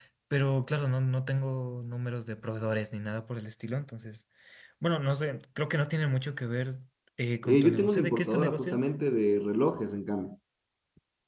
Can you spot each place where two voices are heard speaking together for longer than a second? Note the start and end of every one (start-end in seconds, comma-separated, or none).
7.4-8.8